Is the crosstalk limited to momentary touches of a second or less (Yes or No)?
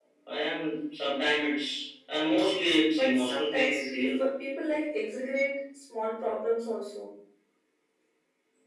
No